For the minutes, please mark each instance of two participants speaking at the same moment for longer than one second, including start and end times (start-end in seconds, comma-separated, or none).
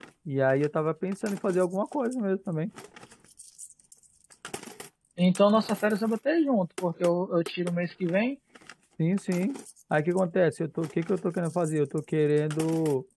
none